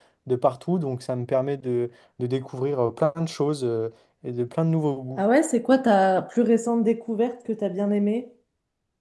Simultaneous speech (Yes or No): No